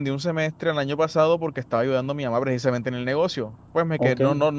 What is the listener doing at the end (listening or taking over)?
listening